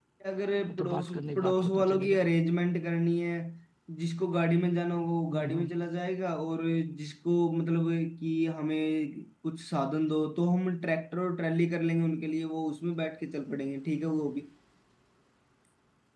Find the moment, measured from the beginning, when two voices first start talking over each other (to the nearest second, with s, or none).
1 s